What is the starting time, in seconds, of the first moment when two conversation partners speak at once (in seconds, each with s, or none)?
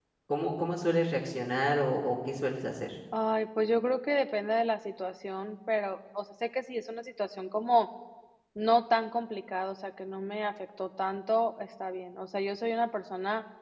none